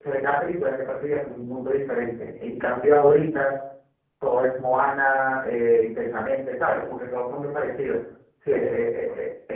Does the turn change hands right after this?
No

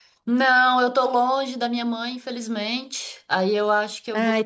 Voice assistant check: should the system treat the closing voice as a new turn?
No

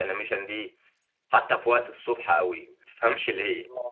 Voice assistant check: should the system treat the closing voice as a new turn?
No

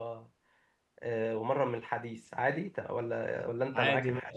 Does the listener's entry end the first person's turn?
Yes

